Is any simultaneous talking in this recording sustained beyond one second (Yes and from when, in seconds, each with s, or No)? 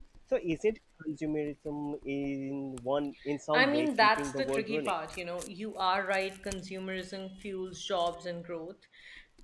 Yes, from 3.5 s